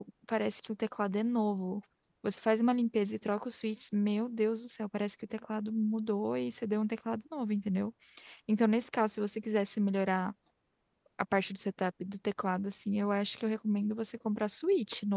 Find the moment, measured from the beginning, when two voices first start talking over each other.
none

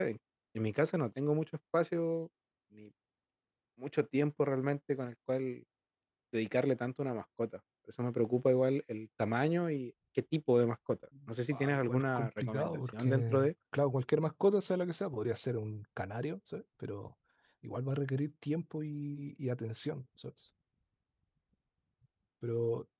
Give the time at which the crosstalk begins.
11.5 s

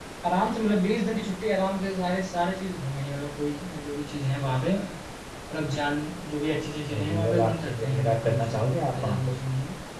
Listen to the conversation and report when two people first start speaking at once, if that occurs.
6.9 s

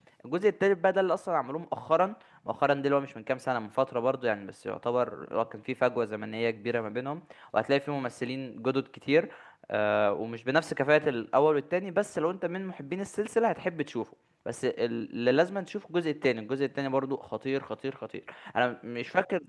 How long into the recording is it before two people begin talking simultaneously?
none

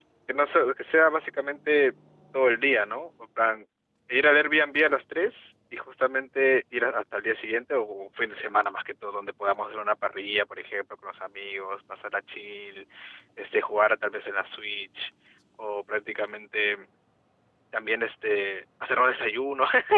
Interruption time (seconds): none

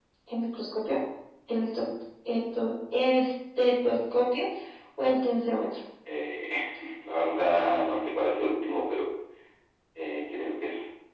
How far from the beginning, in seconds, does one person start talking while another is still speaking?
none

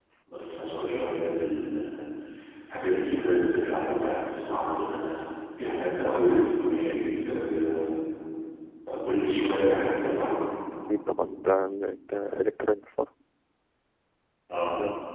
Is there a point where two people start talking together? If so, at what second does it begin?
none

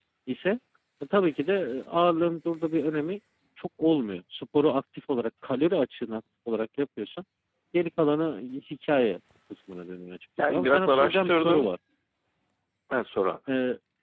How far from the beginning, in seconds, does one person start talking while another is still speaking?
10.4 s

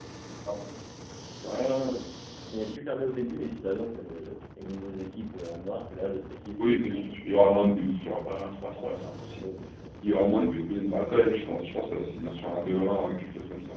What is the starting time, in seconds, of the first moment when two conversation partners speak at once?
none

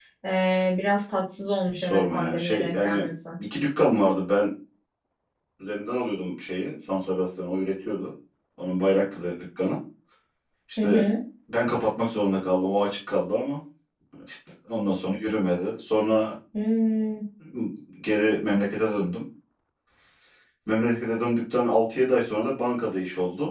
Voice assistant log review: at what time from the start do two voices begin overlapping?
1.8 s

